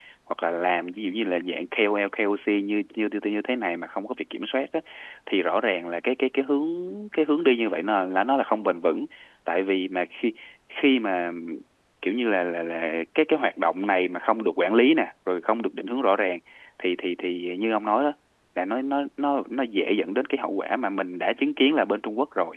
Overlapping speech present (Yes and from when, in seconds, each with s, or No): No